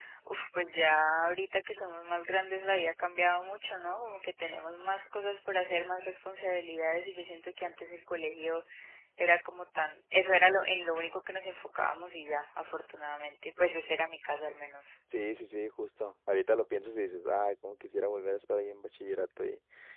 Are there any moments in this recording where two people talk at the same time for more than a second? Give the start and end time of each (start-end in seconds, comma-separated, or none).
none